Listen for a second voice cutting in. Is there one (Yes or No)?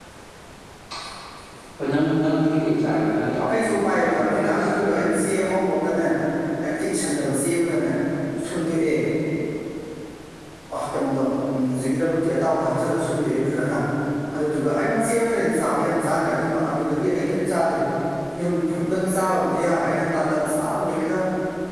Yes